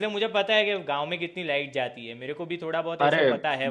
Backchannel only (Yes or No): No